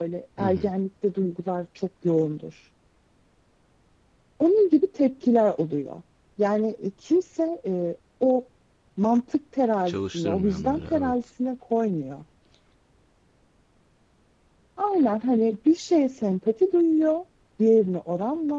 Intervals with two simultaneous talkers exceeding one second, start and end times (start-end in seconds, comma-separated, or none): 9.9-11.1